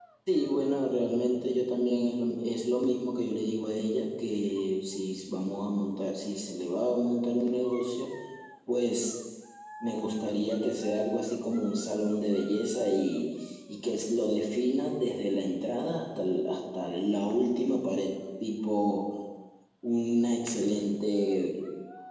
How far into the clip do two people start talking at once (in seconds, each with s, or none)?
none